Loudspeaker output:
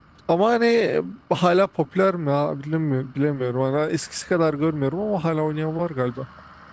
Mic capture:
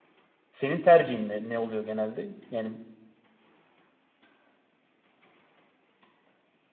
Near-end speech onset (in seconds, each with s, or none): 0.5 s